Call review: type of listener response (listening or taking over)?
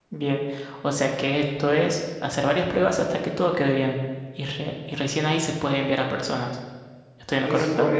taking over